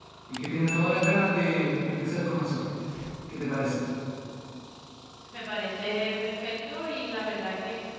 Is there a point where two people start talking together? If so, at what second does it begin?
none

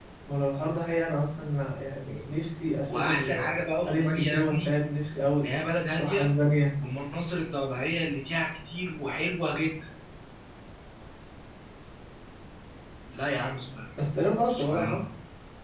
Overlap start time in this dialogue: 3 s

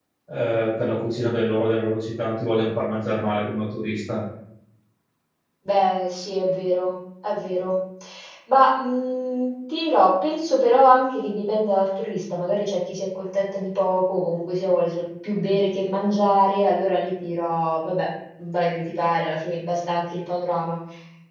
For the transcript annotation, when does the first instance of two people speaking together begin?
none

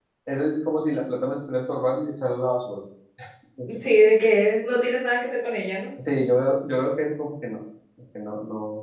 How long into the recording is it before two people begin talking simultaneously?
none

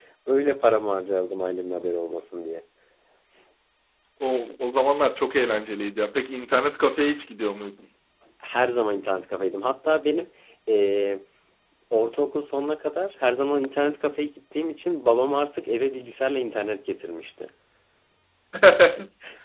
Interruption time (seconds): none

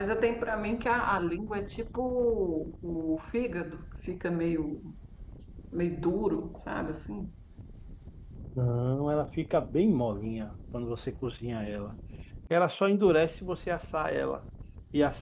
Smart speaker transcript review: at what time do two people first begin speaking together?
none

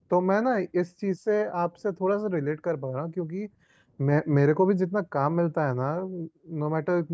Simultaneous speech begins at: none

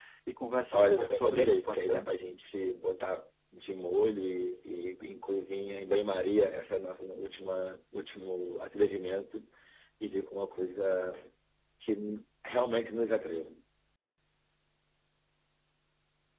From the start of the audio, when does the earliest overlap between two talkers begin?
1 s

